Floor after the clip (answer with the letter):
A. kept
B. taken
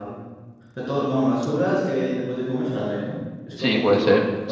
B